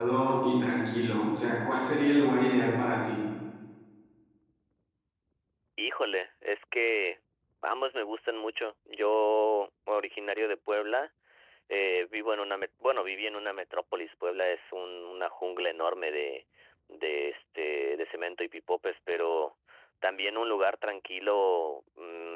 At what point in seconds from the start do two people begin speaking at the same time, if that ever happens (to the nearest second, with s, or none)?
none